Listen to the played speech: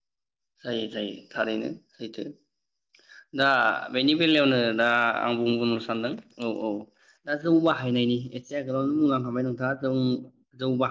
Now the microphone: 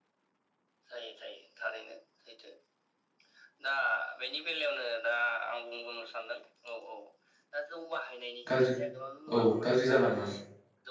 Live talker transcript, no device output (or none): गाज्रि औ गाज्रि जालाङो